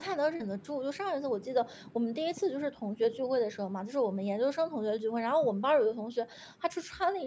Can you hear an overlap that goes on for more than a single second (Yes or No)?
No